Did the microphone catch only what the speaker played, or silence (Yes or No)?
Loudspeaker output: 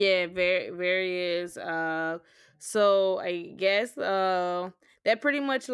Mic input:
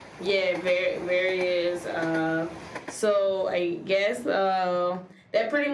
Yes